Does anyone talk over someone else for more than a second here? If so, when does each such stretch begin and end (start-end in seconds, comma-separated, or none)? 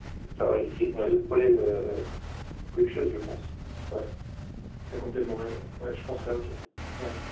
none